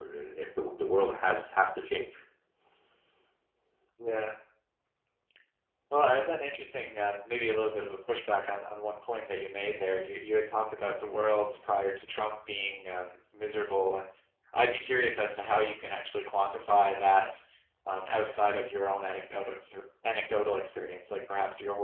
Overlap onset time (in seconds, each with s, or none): none